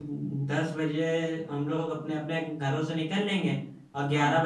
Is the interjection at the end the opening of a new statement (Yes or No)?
No